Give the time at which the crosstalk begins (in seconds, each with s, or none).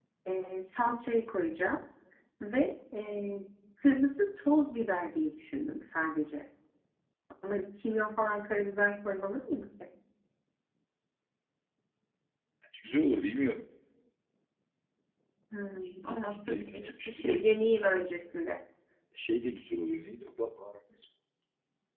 15.8 s